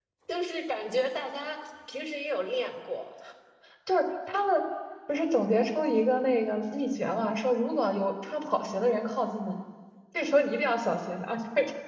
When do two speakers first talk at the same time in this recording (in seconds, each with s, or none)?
none